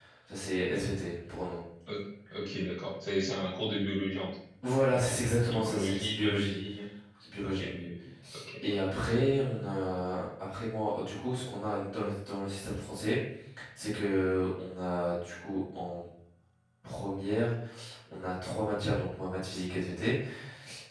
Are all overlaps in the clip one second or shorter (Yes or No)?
No